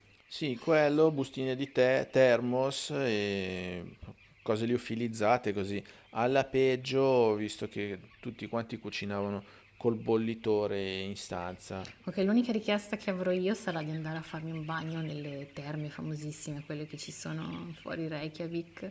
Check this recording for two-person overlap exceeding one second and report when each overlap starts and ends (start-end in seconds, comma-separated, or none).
none